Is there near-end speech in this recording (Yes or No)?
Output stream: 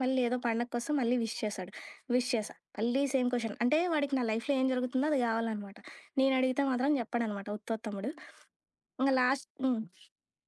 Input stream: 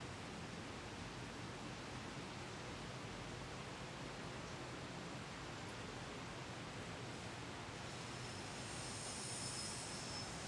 No